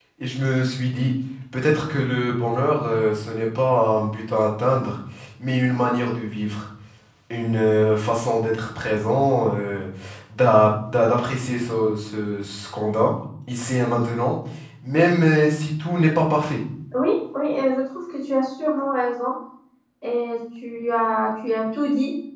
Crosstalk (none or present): none